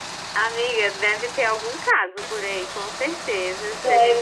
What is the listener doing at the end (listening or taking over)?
listening